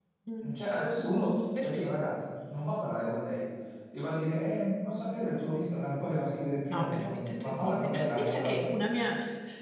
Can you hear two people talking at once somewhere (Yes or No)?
Yes